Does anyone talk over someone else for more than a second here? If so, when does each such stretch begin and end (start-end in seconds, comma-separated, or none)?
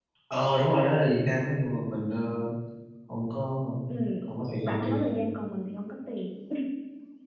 none